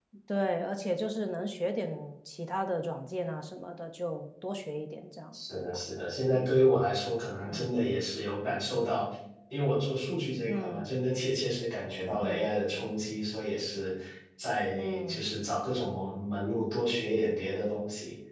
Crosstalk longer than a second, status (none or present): none